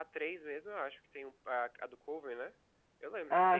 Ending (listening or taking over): listening